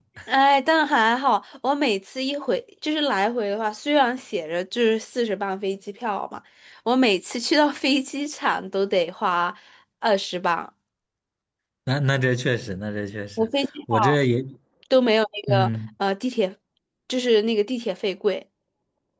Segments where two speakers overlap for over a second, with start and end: none

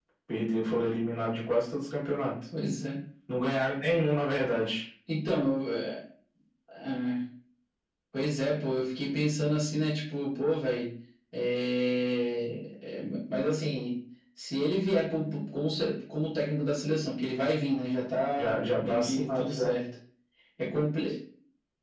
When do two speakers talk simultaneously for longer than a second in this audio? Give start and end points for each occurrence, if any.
18.3-19.7

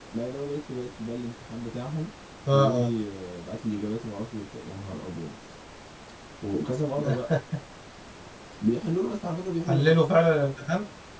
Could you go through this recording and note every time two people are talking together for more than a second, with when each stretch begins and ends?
none

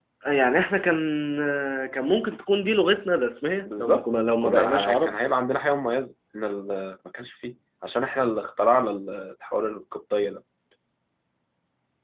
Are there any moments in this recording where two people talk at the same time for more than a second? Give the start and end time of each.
3.7-5.2

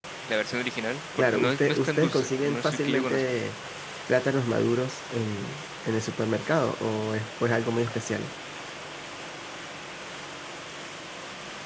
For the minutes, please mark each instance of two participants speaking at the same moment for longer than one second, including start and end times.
1.2-3.4

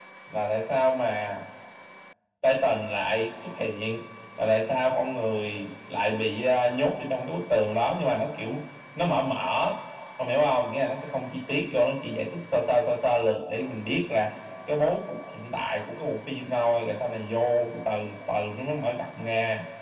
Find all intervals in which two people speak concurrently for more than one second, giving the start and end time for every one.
none

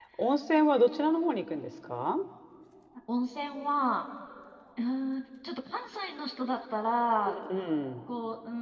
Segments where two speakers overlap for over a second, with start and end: none

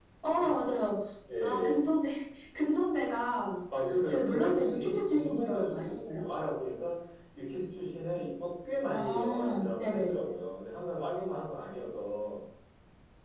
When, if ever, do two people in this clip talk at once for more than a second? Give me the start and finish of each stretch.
4.1-6.2, 8.9-10.1

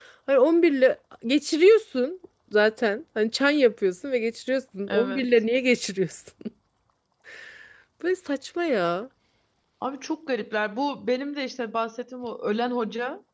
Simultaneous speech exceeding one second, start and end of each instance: none

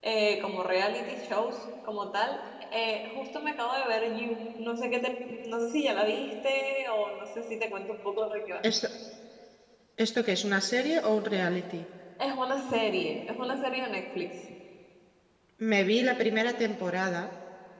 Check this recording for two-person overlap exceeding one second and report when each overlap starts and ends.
none

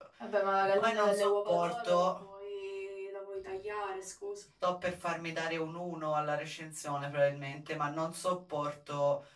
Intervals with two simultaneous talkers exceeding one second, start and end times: 0.8-2.1

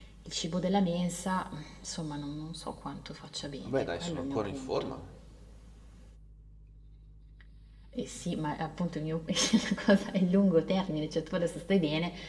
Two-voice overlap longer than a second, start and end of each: 3.6-5.0

